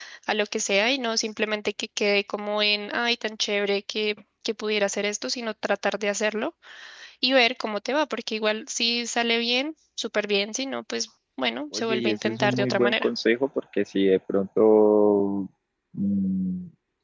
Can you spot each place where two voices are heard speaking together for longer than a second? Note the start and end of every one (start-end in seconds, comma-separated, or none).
11.7-13.1